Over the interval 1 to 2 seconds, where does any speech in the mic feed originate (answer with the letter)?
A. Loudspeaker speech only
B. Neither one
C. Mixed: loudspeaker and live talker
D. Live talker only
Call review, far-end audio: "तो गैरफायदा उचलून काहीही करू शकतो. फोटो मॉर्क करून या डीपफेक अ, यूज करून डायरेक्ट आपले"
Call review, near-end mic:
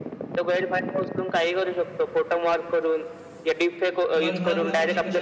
A